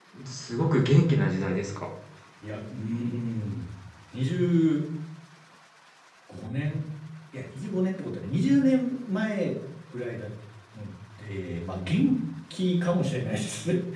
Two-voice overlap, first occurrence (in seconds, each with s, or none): none